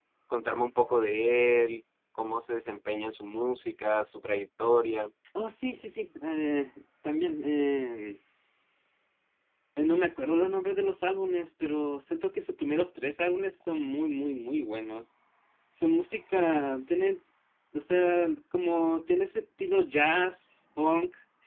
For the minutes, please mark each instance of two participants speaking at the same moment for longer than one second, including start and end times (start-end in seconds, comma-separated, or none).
none